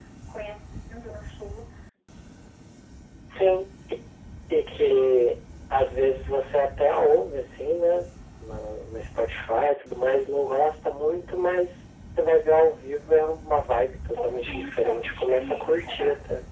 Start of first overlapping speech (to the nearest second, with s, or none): 14 s